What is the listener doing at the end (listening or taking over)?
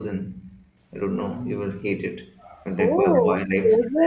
taking over